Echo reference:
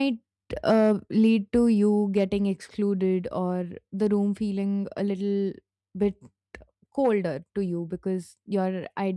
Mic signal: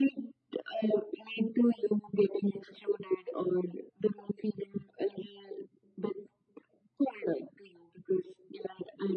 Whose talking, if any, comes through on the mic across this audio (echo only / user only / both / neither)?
echo only